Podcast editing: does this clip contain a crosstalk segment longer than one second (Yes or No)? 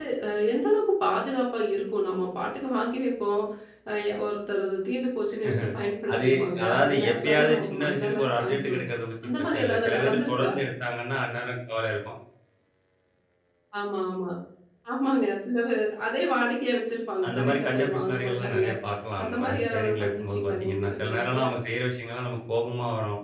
Yes